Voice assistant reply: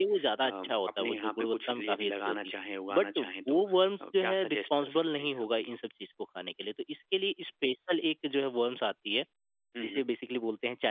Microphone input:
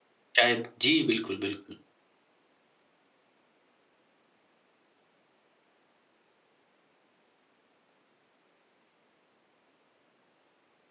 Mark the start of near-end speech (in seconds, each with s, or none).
0.4 s